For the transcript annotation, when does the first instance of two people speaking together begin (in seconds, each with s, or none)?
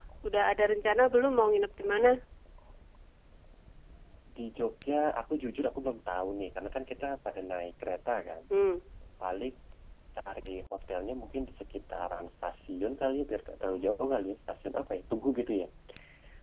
none